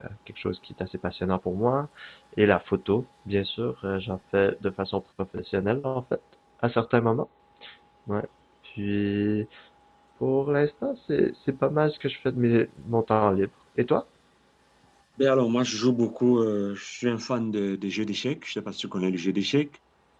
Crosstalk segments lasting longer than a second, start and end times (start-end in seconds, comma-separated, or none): none